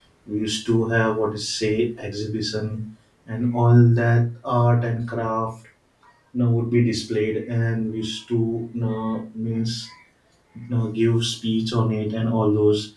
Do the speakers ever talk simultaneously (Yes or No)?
No